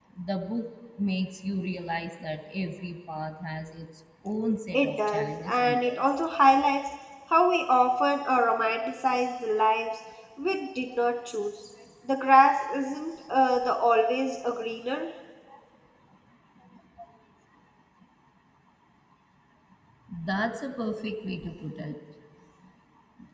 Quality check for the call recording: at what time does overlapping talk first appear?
4.7 s

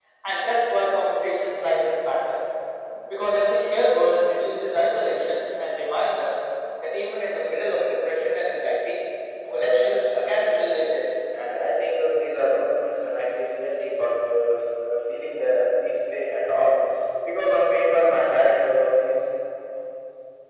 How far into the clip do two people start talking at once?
9.5 s

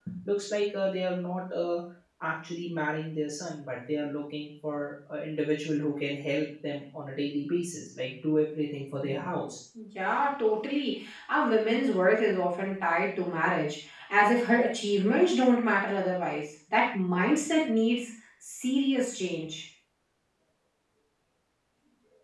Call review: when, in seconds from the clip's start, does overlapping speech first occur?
none

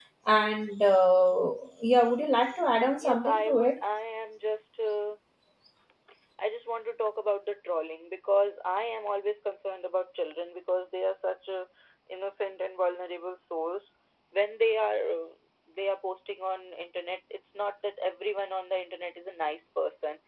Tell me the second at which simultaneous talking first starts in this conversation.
2.4 s

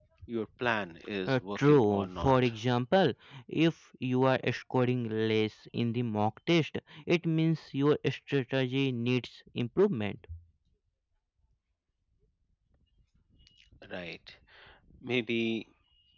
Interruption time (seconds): 1.3 s

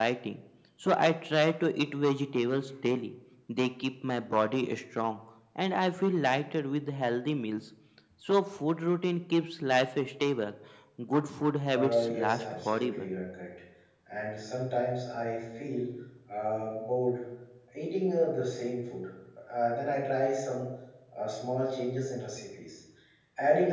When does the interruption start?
11.7 s

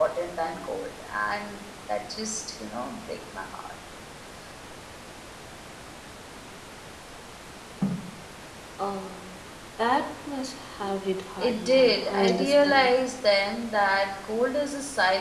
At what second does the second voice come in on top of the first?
11.4 s

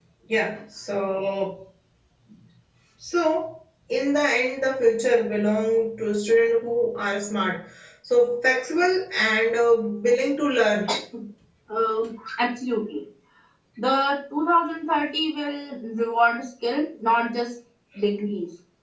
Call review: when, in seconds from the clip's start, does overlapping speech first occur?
none

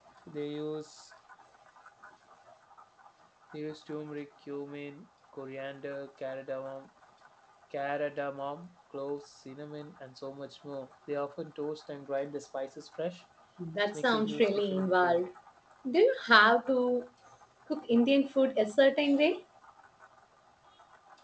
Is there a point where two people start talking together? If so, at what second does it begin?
13.9 s

